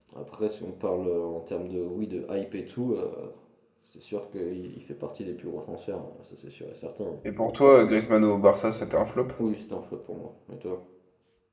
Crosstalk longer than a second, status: none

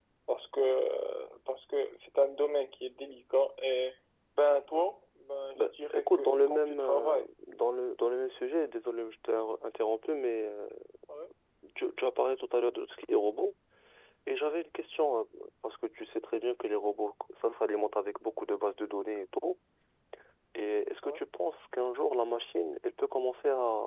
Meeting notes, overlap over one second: present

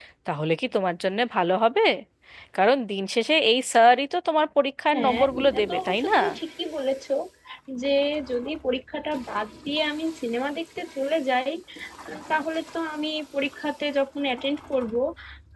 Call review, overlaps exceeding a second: present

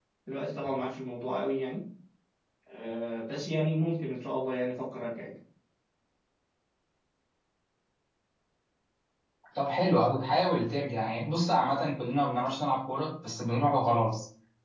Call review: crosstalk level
none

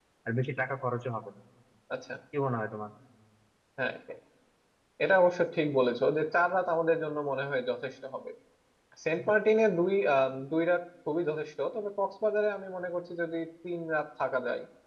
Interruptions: none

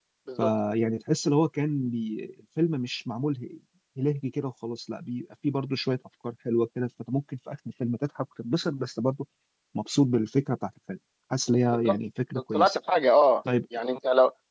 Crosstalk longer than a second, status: none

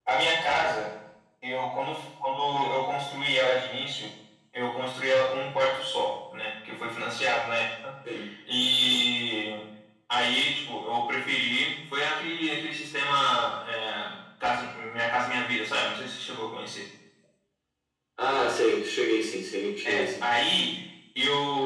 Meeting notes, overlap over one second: none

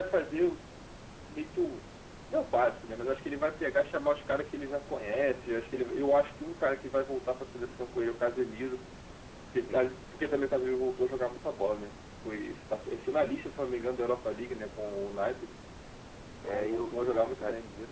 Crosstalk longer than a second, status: present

